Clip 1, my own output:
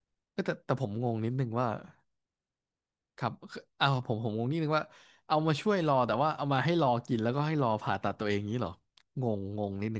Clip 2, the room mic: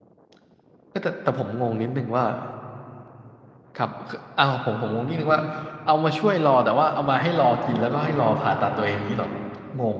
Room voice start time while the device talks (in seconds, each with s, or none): none